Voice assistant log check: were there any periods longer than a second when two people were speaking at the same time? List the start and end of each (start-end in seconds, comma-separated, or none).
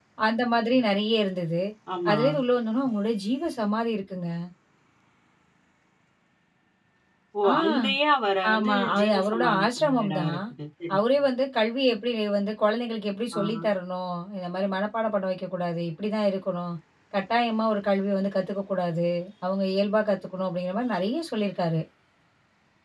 8.5-10.4